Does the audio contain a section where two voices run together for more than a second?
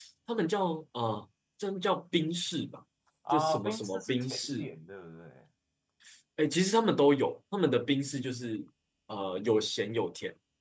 Yes, from 3.3 s

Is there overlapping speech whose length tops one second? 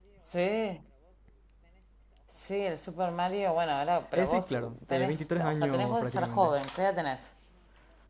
Yes, from 4.1 s

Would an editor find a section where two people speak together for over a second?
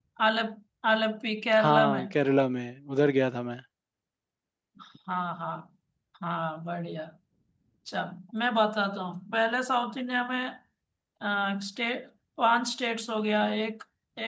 No

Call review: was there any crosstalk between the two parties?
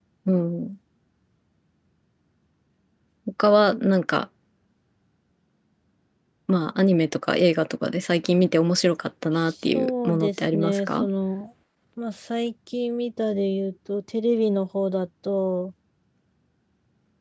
Yes, from 9.7 s

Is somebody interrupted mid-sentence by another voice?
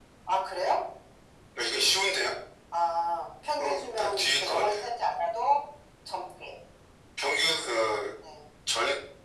Yes, from 3.6 s

